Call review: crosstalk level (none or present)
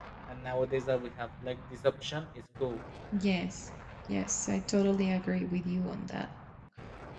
none